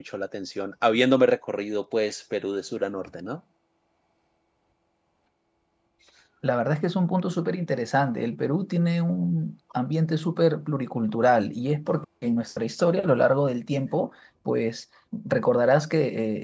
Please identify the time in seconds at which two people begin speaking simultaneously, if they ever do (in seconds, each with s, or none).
none